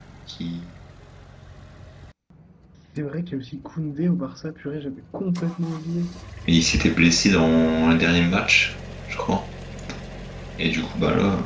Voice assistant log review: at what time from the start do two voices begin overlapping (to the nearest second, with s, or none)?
none